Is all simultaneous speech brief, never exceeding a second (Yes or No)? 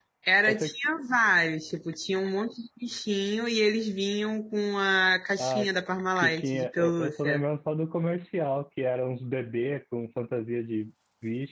No